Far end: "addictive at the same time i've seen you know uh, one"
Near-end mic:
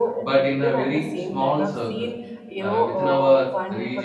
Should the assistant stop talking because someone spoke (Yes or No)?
Yes